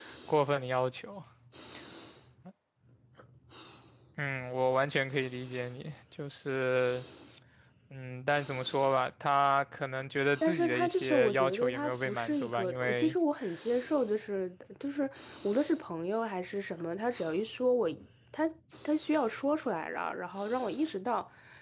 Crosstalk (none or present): present